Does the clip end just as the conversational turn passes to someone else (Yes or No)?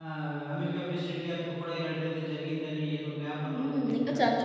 Yes